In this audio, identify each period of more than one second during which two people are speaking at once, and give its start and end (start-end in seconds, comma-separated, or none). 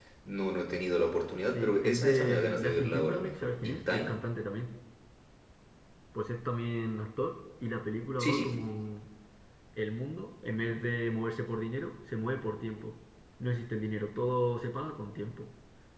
1.5-4.1